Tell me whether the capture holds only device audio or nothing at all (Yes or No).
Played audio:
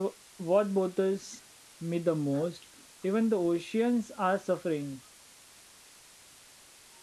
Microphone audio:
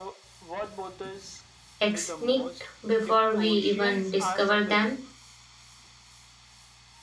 No